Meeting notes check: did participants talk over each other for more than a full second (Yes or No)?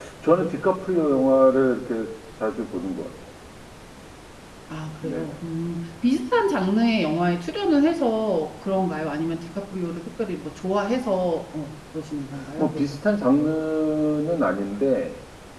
No